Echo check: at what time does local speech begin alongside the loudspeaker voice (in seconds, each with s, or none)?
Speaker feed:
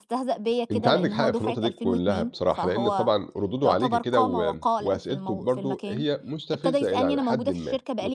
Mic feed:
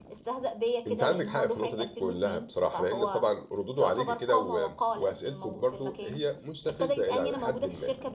none